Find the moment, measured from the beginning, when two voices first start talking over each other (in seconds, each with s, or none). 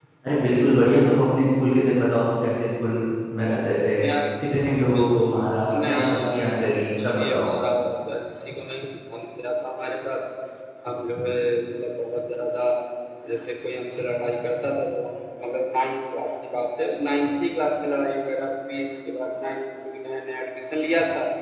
4.9 s